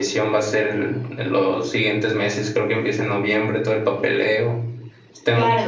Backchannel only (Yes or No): No